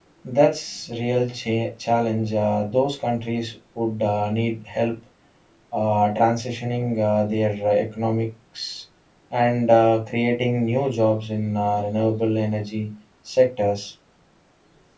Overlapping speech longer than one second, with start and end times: none

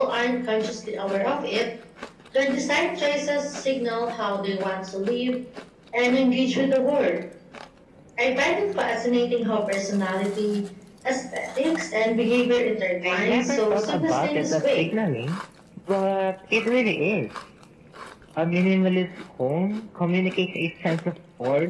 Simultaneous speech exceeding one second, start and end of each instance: 13.1-14.8

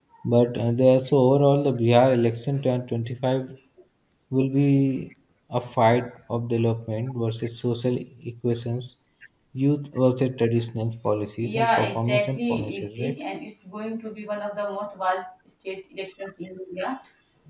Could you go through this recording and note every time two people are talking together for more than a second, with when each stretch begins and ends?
11.4-13.2

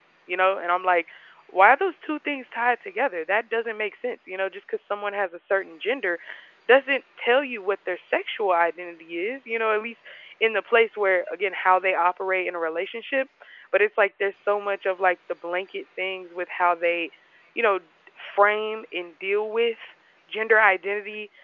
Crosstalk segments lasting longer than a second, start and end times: none

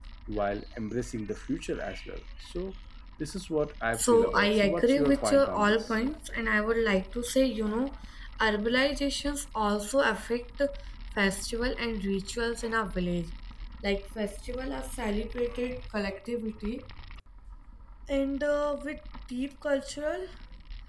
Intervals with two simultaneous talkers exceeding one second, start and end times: 3.9-6.0

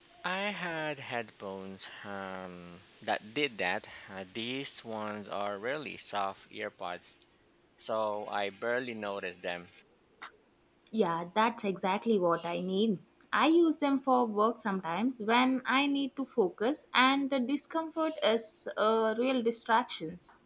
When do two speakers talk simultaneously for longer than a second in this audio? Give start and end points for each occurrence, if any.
none

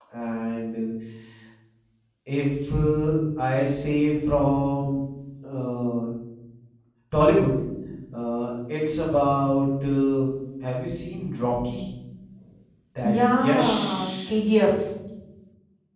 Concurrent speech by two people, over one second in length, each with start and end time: 13.0-14.3

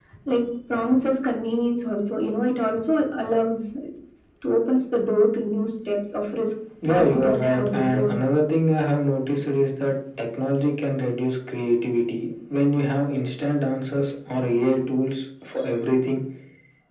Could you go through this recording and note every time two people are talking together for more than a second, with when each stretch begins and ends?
6.8-8.1

